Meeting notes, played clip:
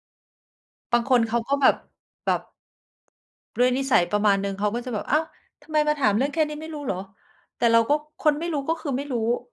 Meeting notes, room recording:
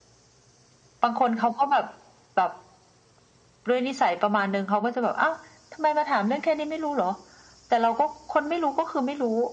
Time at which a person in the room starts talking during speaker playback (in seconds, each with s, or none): none